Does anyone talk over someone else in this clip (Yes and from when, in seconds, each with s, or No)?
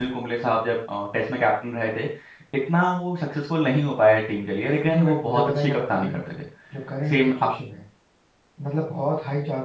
Yes, from 4.9 s